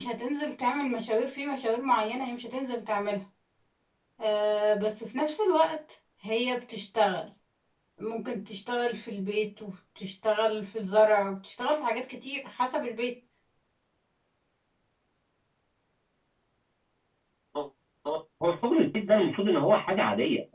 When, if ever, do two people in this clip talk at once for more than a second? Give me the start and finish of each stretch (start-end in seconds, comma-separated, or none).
none